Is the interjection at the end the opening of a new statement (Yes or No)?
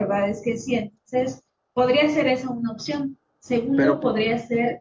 No